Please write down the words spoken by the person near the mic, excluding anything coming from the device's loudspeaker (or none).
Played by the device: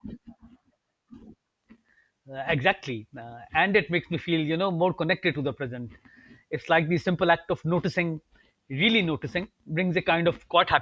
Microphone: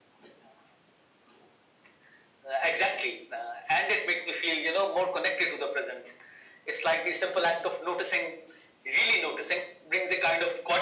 none